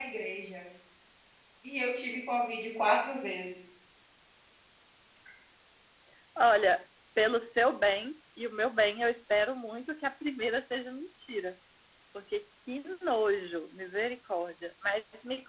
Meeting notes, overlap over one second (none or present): none